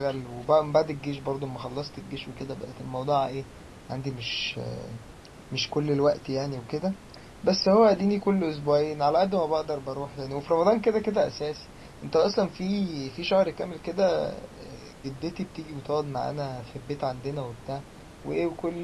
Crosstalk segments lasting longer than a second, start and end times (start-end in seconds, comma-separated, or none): none